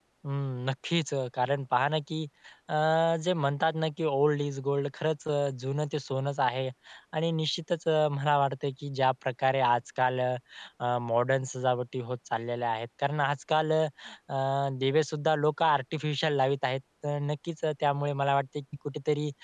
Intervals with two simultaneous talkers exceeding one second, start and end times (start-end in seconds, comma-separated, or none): none